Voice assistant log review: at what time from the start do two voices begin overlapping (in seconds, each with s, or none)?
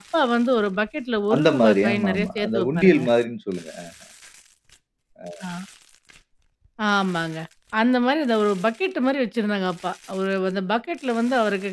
1.3 s